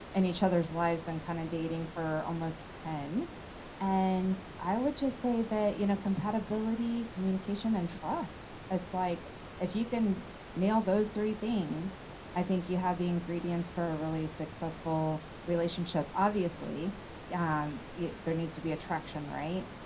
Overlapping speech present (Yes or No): No